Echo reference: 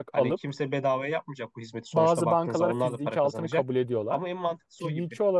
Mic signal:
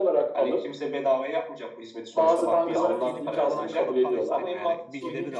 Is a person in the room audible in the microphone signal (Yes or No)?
Yes